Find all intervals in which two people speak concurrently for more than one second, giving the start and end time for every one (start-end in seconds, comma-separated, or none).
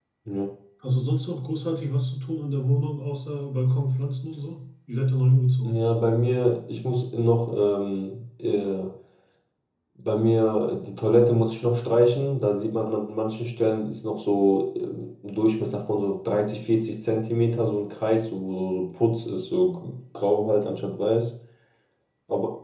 none